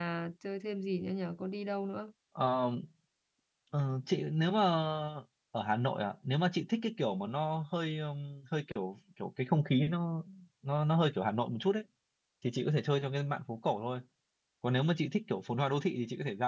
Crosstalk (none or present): none